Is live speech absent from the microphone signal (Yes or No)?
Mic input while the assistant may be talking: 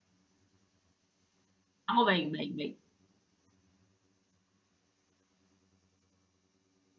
No